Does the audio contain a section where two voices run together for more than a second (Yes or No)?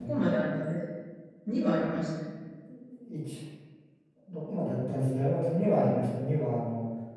No